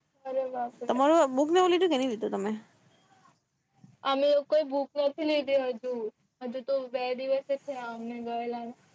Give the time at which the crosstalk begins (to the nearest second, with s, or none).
none